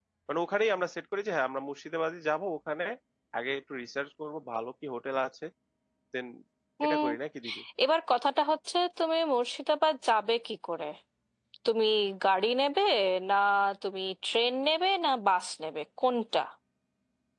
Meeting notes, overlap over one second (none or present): none